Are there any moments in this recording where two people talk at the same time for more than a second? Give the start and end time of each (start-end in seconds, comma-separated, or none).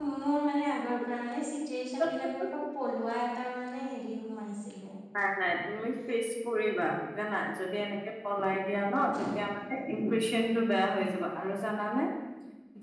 none